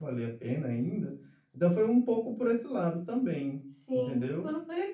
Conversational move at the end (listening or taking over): taking over